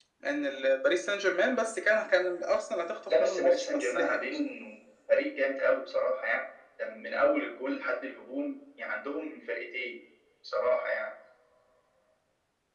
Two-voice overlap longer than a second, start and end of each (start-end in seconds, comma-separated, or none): 3.1-4.4